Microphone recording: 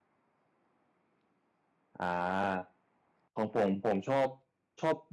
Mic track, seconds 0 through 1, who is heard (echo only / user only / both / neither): neither